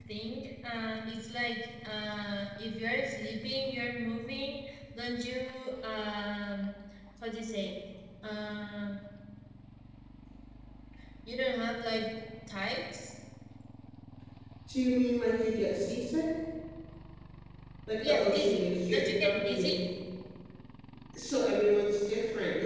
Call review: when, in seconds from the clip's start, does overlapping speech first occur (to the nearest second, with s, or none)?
18 s